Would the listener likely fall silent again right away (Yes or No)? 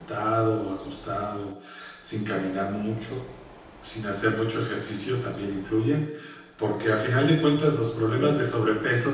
Yes